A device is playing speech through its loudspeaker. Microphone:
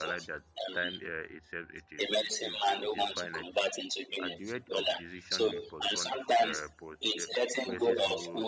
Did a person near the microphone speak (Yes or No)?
Yes